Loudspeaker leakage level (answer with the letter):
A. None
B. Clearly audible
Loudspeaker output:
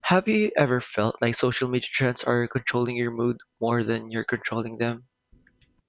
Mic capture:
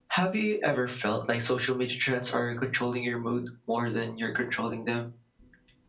B